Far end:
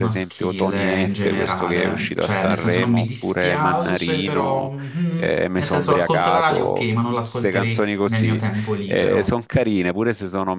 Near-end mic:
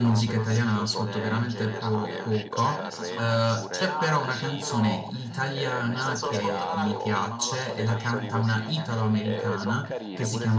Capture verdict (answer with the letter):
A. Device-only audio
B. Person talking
B